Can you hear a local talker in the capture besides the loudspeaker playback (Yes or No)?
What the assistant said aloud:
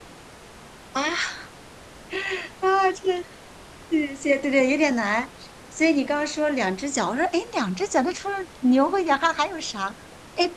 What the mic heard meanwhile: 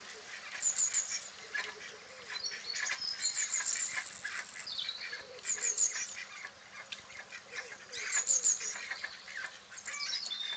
No